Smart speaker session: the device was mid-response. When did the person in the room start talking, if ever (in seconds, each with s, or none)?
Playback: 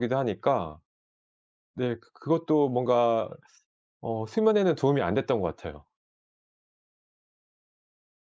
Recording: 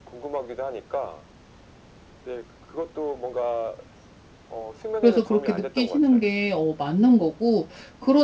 5.0 s